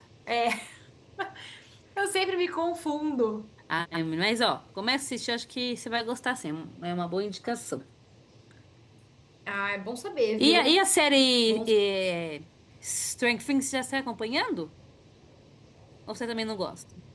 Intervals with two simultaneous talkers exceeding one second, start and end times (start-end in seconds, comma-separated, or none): none